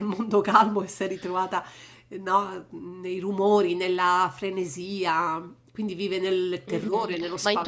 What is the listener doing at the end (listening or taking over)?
taking over